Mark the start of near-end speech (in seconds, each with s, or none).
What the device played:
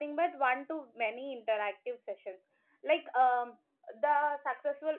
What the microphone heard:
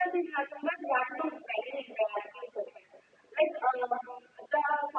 none